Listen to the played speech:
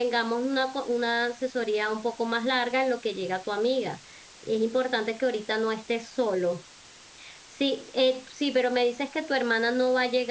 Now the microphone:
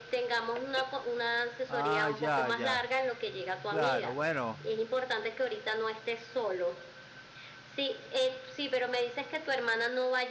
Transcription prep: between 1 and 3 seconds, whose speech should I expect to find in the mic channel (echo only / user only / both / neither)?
both